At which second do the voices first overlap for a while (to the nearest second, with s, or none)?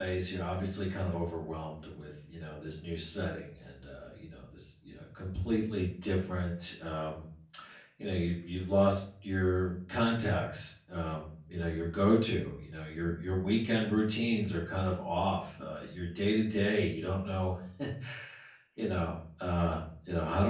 none